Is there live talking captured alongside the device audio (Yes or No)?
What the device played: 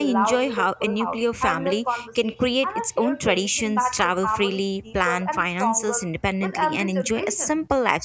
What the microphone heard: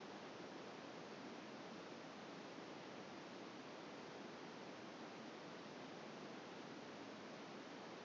No